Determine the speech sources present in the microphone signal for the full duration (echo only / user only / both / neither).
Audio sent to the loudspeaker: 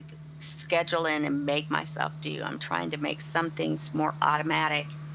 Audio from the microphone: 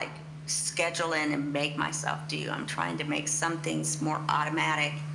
echo only